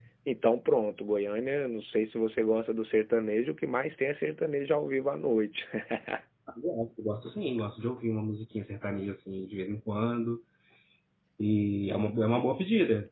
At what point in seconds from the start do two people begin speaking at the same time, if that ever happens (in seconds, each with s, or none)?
none